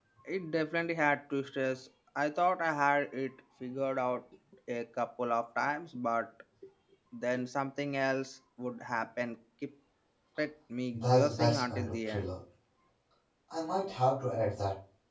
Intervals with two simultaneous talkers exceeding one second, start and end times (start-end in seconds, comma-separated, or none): 10.9-12.3